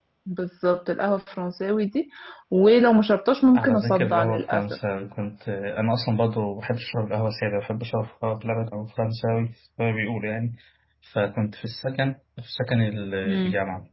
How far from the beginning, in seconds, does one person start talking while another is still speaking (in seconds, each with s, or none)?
3.5 s